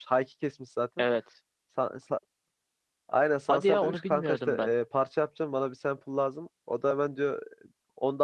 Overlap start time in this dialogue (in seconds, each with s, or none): 3.5 s